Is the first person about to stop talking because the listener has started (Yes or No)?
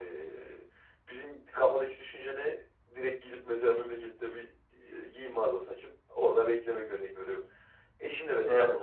No